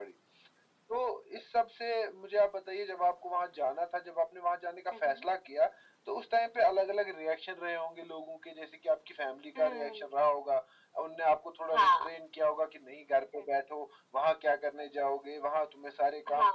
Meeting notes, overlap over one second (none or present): none